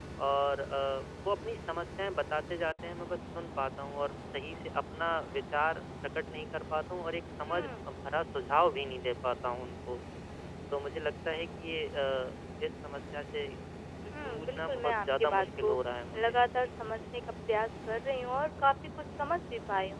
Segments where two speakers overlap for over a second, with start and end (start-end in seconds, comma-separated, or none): 14.2-15.8